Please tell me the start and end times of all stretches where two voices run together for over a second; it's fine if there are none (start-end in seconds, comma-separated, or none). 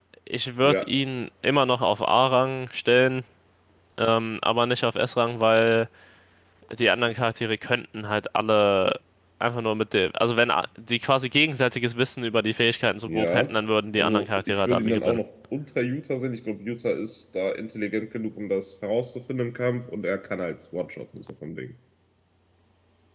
14.0-15.2